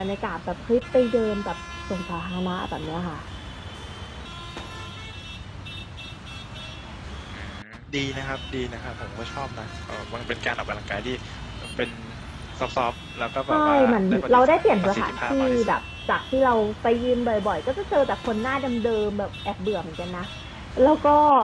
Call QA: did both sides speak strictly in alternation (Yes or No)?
No